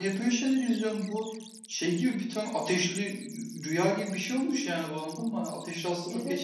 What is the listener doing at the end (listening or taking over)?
listening